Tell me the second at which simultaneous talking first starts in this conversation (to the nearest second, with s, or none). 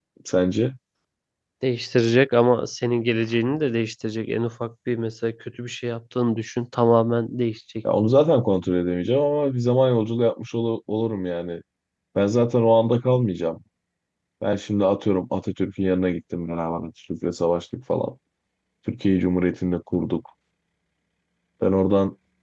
none